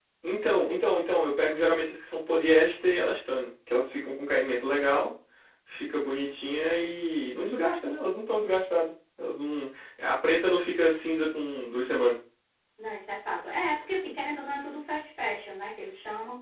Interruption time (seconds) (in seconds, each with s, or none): none